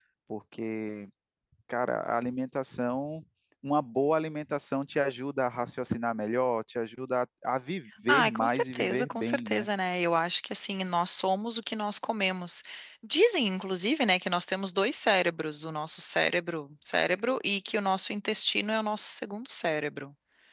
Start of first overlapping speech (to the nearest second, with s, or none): 8 s